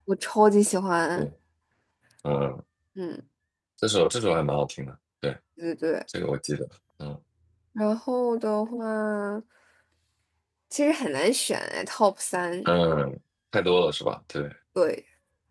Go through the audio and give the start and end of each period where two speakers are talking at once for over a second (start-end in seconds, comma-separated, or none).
none